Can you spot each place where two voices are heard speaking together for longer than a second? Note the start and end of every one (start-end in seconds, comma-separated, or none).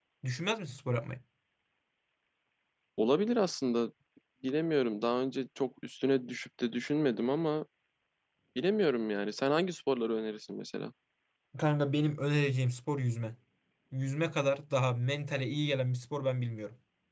none